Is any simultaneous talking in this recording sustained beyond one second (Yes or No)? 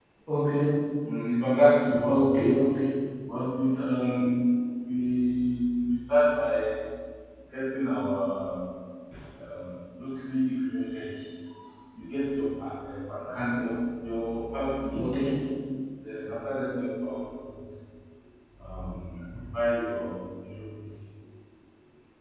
No